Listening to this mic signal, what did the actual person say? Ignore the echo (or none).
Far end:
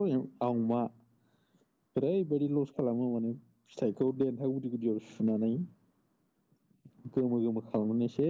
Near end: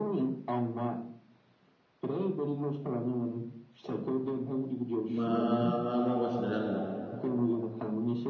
मा मा मावगासिनो दा न'वाव